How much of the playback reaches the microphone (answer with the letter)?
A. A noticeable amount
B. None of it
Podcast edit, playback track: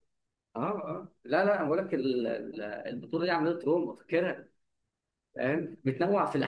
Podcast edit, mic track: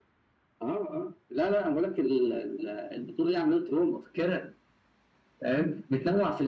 A